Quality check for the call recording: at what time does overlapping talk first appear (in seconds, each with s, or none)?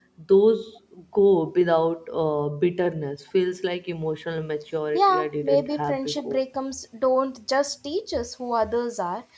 4.9 s